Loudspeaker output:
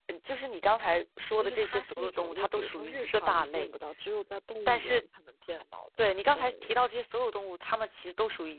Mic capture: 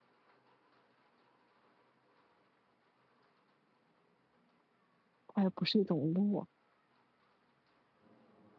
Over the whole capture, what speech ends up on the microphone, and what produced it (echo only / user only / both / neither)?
user only